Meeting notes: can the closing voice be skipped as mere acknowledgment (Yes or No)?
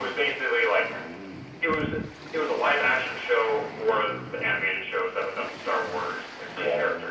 Yes